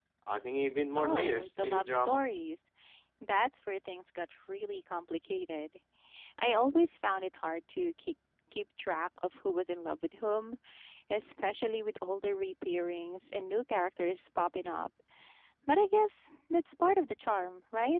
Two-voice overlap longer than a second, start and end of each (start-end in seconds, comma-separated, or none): 1.0-2.2